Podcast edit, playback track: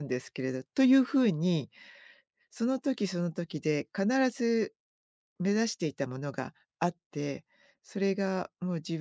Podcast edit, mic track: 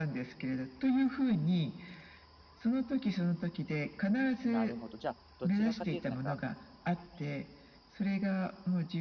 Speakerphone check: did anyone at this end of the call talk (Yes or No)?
Yes